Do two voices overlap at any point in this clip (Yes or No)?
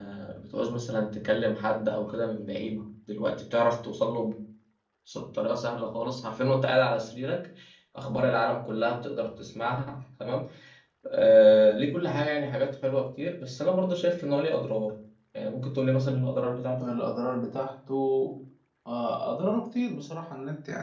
No